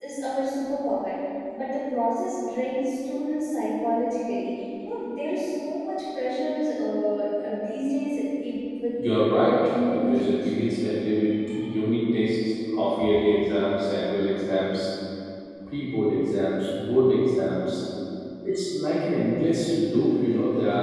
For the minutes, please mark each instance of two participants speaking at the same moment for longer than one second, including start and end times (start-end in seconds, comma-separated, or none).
9.3-10.6